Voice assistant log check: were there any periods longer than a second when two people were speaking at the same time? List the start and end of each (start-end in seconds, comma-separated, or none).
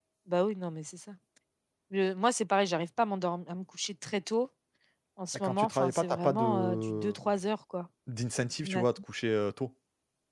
5.3-7.1